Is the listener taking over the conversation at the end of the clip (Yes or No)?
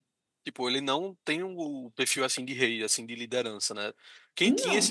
No